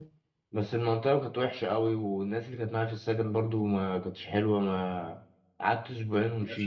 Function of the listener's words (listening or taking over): listening